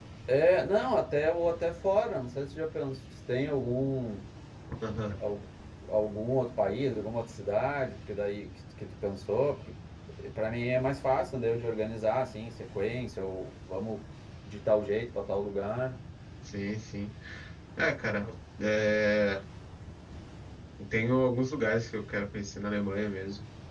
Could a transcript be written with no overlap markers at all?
Yes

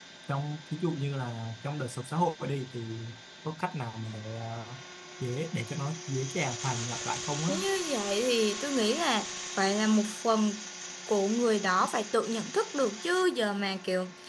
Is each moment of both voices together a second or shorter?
Yes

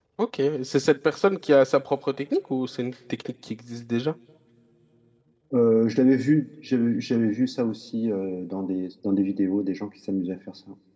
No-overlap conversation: Yes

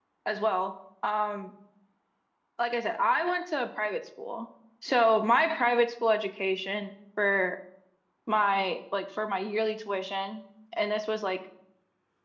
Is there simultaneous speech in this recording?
No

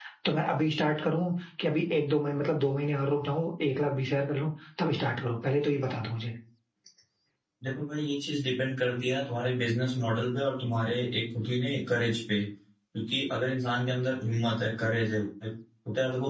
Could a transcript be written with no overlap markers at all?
Yes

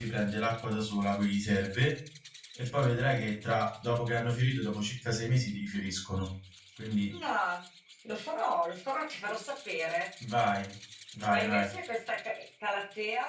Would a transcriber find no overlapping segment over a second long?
Yes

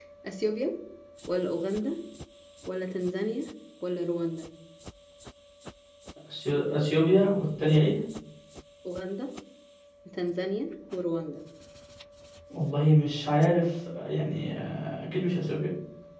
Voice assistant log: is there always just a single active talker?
Yes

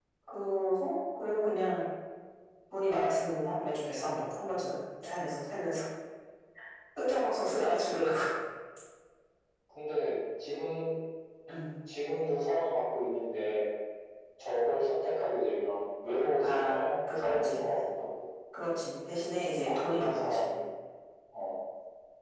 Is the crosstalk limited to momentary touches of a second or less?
No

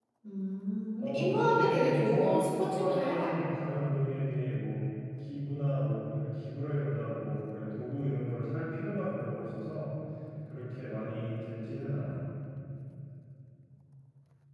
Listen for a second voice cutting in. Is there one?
Yes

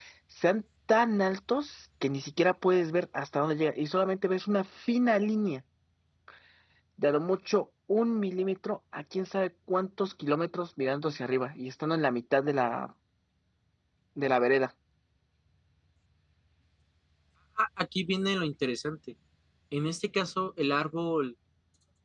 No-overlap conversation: Yes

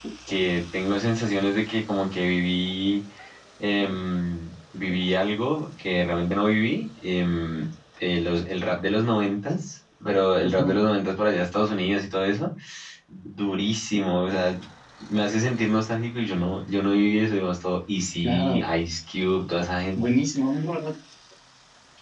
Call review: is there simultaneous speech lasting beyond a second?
No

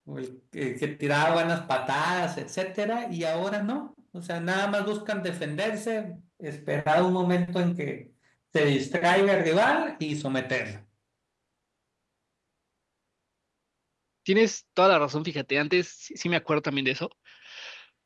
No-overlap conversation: Yes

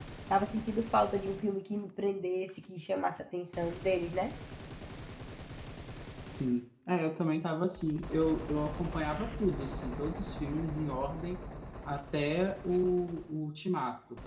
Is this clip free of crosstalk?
Yes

